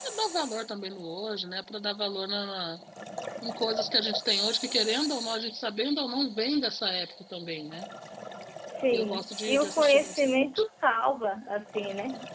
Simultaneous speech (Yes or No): Yes